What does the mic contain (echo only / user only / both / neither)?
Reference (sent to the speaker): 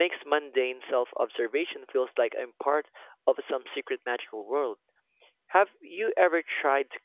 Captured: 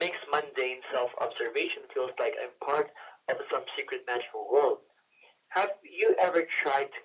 echo only